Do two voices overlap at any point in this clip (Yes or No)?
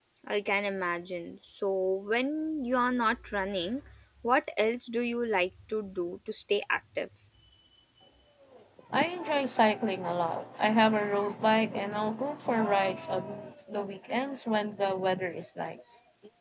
No